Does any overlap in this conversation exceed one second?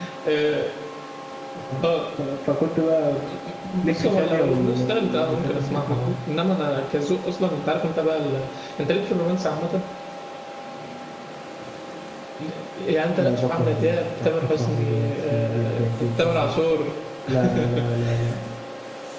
Yes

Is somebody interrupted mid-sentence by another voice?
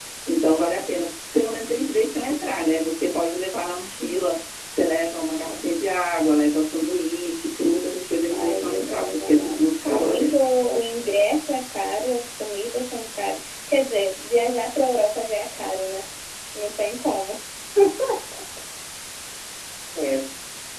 Yes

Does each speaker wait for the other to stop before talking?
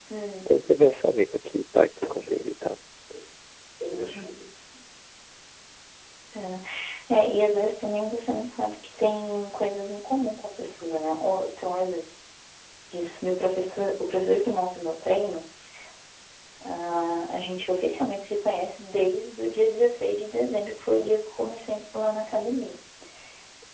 Yes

